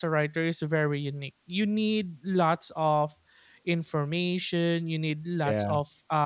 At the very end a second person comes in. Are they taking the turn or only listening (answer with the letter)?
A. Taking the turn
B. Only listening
B